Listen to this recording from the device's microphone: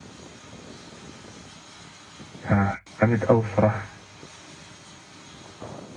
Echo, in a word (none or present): none